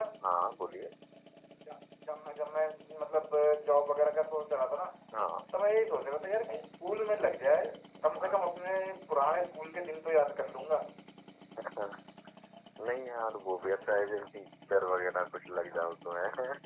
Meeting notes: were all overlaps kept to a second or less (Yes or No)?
Yes